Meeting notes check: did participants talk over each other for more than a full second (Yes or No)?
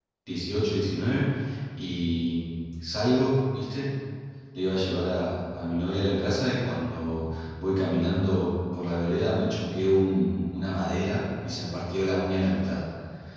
No